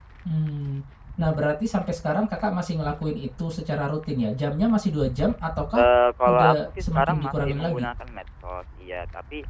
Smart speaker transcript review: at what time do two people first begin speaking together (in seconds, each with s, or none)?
6.2 s